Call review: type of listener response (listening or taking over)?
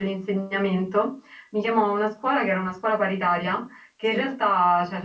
listening